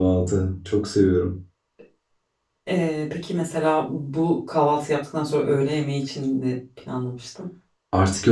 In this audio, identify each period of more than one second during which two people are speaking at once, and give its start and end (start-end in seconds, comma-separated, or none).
none